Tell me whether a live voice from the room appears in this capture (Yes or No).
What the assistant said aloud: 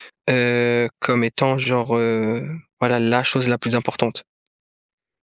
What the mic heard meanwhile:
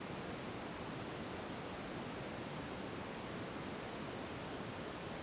No